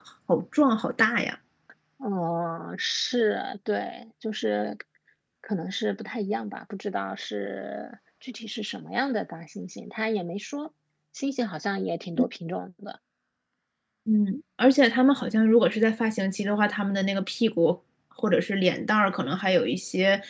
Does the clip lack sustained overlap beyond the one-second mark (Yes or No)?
Yes